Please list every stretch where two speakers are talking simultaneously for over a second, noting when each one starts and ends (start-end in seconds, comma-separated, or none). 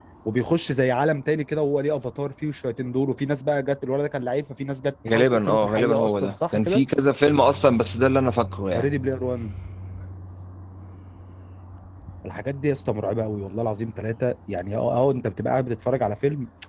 5.1-6.8